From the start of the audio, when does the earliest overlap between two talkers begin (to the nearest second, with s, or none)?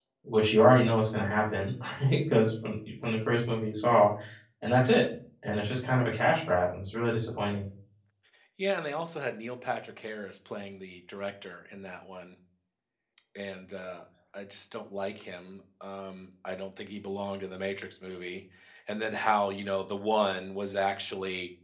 none